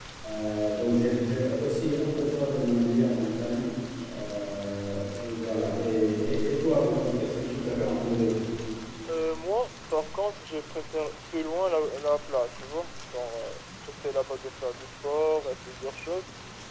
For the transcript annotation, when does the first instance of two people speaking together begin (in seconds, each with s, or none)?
none